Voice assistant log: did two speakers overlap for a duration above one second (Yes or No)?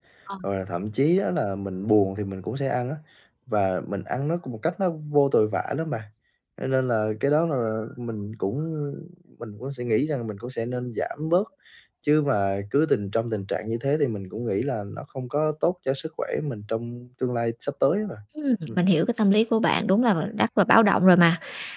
No